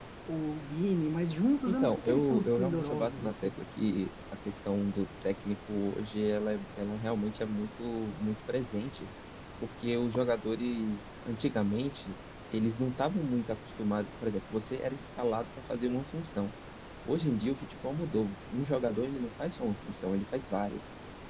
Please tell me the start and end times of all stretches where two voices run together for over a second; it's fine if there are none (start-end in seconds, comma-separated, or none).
1.7-3.5